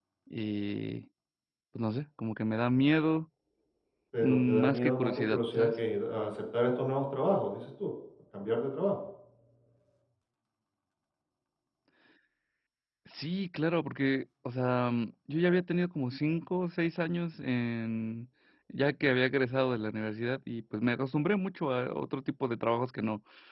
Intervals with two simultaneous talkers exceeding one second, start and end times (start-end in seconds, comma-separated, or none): 4.2-5.7